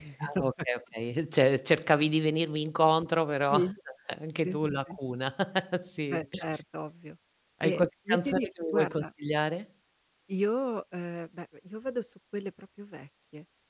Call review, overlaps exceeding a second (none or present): present